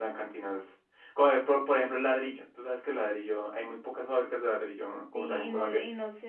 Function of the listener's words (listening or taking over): taking over